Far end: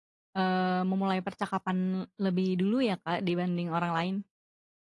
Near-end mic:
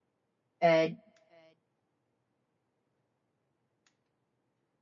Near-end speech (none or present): present